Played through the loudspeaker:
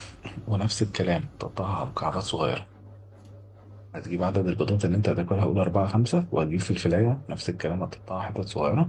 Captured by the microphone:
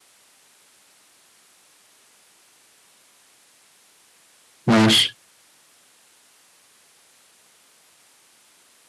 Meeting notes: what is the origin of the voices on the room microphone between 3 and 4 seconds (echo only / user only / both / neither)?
neither